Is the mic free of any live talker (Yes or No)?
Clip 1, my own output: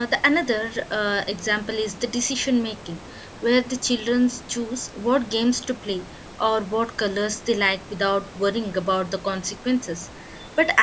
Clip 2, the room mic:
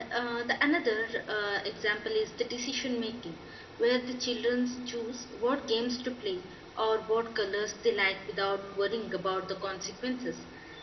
Yes